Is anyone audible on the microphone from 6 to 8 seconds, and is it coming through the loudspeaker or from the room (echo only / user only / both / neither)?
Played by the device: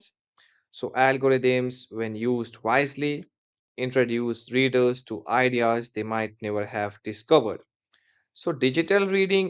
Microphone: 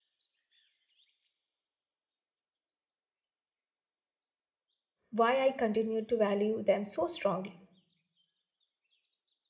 user only